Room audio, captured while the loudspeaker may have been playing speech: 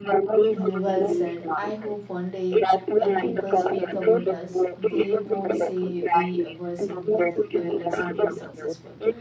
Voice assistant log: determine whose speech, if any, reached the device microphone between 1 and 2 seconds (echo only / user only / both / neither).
both